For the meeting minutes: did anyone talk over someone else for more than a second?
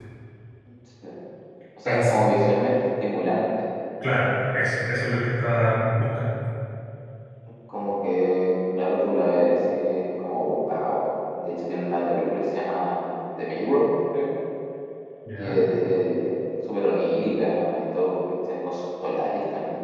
No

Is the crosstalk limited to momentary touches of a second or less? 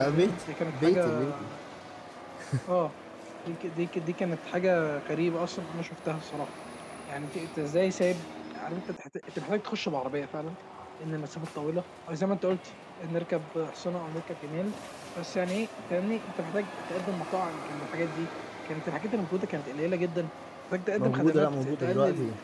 No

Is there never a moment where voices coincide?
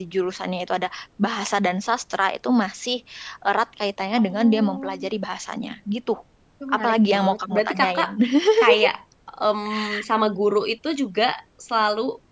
No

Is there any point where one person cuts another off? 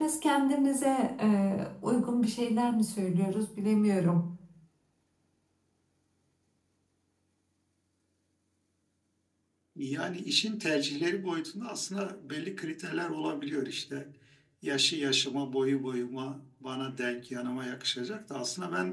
No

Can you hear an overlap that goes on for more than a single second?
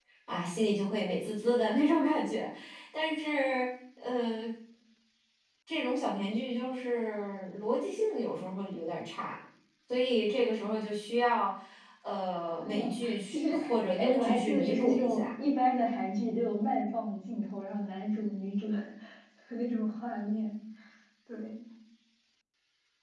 Yes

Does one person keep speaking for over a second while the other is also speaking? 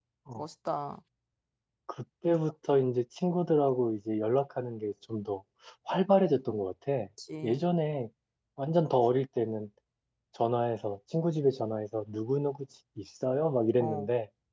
No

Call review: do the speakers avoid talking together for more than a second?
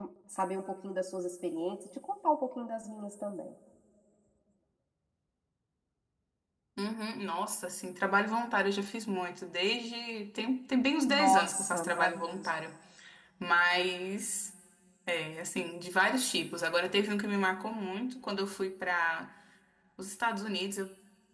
No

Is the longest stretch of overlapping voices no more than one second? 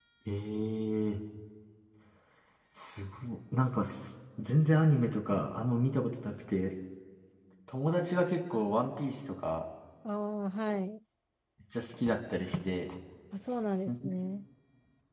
Yes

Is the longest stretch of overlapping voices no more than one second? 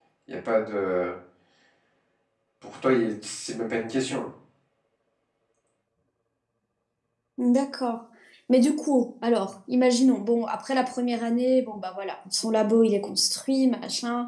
Yes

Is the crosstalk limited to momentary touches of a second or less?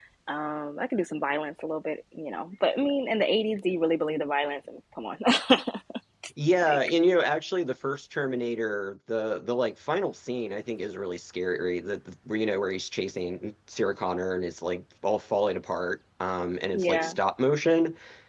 Yes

